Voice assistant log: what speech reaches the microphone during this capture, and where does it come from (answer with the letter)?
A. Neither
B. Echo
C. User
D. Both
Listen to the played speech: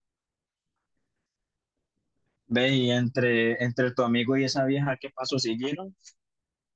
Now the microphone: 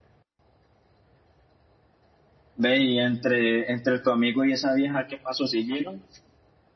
B